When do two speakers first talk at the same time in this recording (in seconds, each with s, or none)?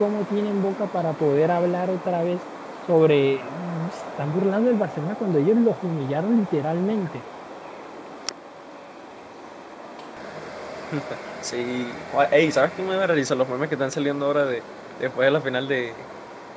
none